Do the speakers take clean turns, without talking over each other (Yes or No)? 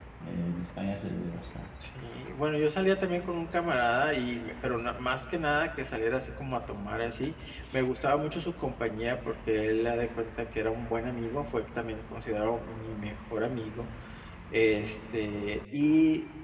Yes